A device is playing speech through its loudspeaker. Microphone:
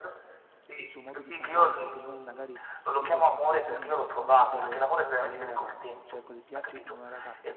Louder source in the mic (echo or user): echo